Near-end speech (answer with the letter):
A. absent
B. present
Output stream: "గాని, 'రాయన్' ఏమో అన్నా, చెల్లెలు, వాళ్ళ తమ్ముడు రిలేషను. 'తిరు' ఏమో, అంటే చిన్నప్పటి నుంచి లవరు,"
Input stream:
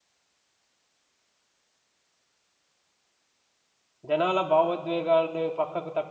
B